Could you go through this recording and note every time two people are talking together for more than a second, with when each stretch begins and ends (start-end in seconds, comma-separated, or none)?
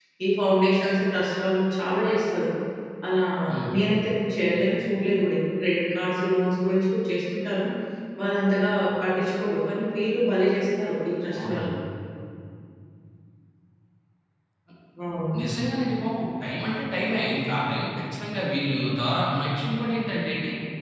none